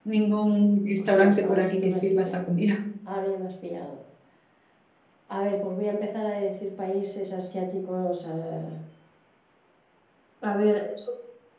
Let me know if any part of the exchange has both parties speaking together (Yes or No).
Yes